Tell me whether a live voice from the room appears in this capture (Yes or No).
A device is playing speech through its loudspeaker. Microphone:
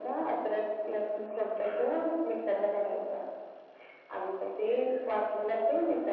No